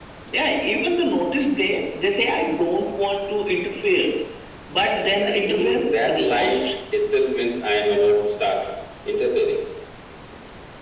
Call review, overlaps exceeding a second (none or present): present